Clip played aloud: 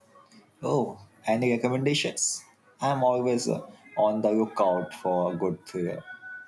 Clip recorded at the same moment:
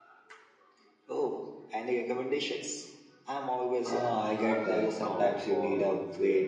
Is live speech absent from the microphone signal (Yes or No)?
No